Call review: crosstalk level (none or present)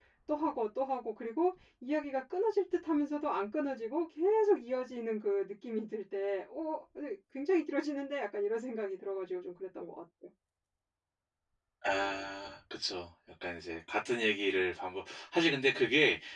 none